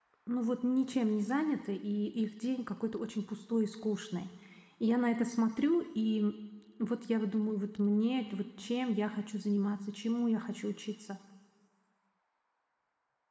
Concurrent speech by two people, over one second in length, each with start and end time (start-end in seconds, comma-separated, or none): none